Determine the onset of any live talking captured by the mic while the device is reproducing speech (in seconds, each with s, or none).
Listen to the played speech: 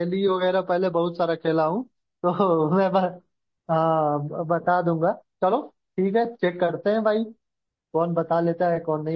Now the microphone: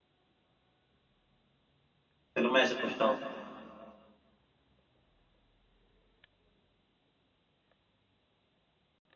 2.4 s